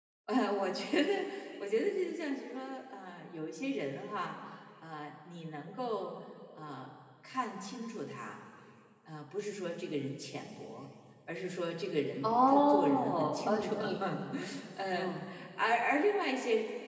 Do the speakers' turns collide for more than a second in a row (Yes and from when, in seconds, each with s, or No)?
Yes, from 12.2 s